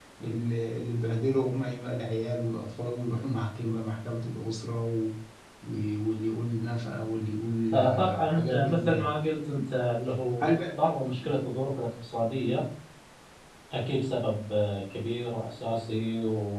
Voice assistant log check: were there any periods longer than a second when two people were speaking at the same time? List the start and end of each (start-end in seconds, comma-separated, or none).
7.7-9.1